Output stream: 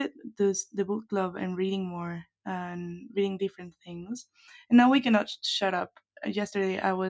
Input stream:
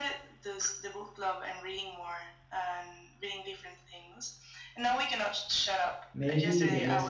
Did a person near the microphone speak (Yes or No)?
Yes